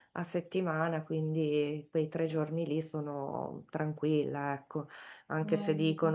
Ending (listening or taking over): listening